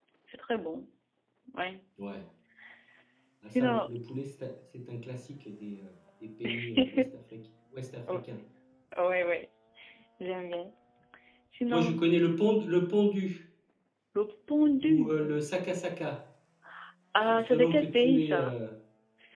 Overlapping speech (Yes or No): Yes